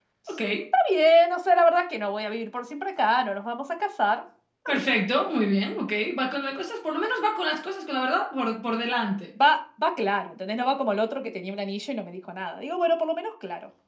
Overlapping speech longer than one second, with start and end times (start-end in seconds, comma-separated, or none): none